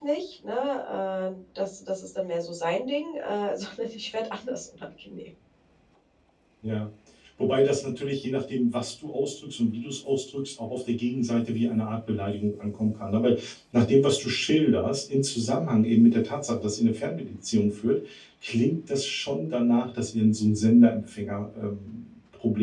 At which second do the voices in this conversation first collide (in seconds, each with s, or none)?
none